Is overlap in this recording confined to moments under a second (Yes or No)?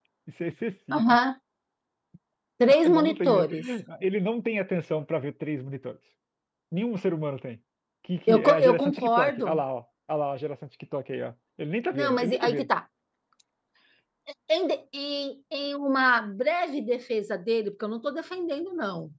No